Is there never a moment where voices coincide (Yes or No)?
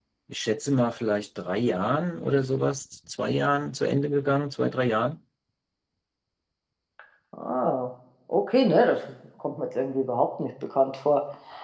Yes